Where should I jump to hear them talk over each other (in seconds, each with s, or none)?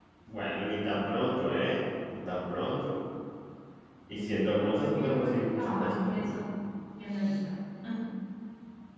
4.1 s